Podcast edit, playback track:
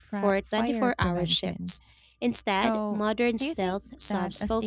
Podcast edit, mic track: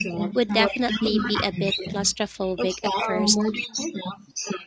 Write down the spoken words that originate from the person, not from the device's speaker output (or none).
would definitely be a bit claustrophobic at first.